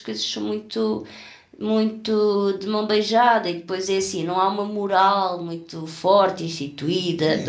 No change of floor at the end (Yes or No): No